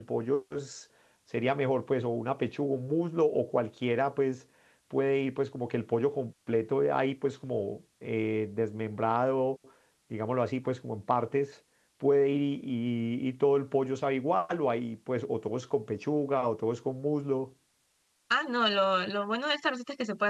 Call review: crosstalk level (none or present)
none